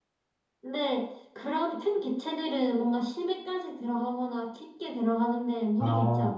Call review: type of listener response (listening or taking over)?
taking over